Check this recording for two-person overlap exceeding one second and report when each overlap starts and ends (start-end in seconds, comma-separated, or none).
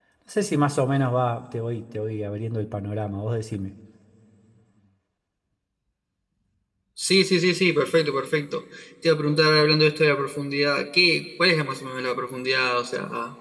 none